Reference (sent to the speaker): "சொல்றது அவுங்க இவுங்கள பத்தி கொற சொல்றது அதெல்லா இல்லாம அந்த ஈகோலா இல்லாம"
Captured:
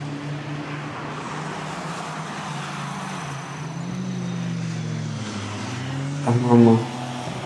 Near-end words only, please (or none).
ஆமா ஆமா